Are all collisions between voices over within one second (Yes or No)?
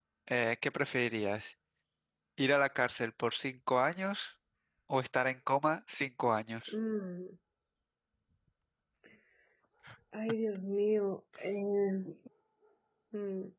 Yes